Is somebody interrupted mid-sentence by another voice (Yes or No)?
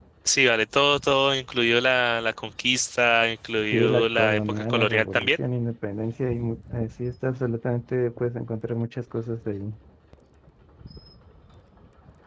Yes